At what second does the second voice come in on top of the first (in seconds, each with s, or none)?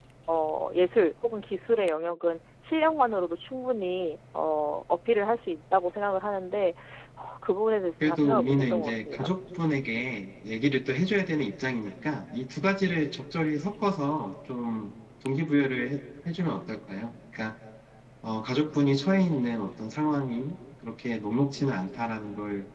8.0 s